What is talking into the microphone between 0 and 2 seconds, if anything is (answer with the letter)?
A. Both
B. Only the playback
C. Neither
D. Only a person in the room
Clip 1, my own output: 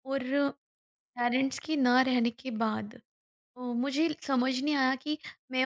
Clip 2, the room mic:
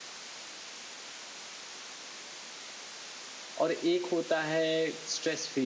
C